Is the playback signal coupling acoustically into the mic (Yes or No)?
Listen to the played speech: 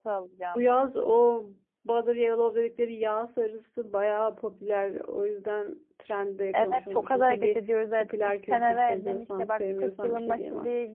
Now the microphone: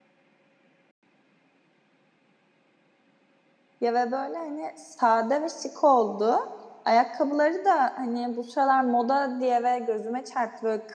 No